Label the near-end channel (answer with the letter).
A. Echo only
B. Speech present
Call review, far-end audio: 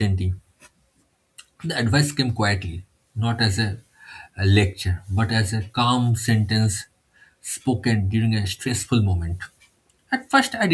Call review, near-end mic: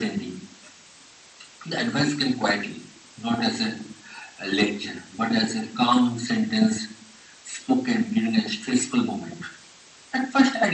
A